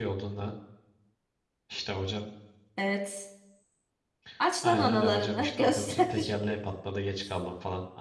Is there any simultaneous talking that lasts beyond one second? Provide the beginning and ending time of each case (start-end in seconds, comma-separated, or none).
4.6-6.1